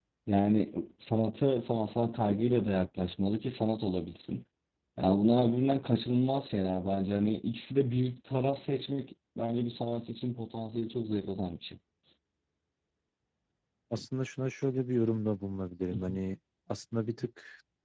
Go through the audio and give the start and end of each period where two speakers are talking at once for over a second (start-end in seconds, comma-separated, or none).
none